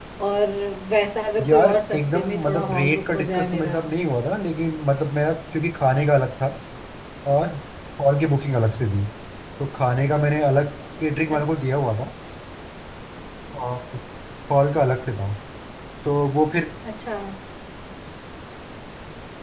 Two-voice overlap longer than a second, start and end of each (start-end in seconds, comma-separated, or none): 1.5-3.8